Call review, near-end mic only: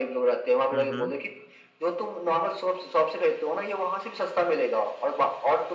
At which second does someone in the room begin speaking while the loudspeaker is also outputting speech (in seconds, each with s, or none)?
0.7 s